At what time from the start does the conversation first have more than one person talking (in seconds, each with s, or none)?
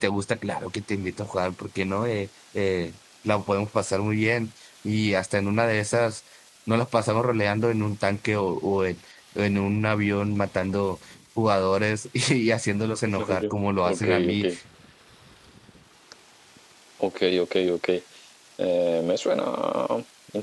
13.1 s